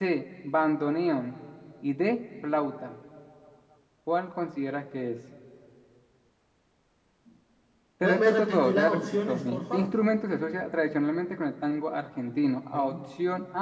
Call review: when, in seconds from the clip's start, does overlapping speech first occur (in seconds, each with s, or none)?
8.0 s